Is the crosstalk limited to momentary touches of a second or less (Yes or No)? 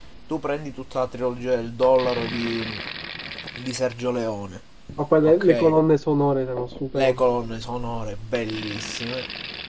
Yes